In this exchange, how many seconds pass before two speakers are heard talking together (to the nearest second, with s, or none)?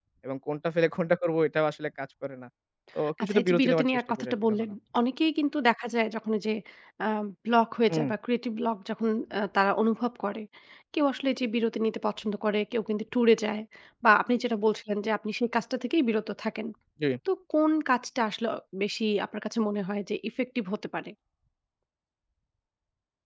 3 s